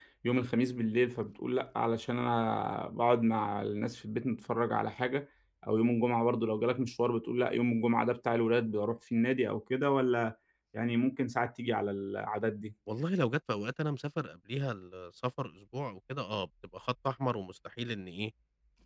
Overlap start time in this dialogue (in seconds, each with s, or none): none